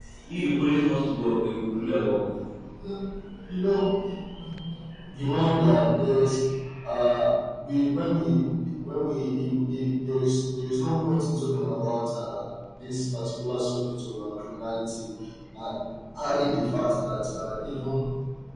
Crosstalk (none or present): none